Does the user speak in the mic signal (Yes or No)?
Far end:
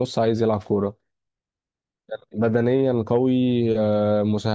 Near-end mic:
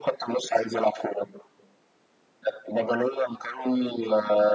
No